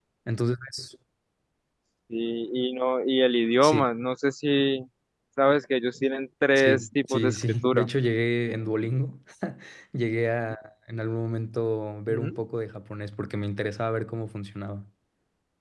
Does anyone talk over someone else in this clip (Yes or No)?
Yes